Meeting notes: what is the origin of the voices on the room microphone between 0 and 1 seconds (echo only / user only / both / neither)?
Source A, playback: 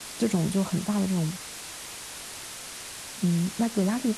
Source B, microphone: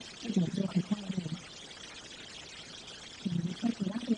echo only